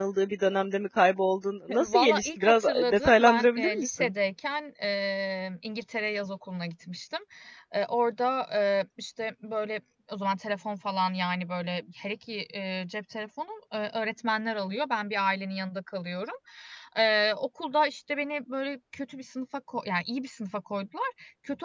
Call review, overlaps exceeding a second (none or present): present